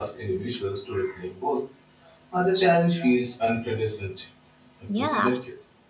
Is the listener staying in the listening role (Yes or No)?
No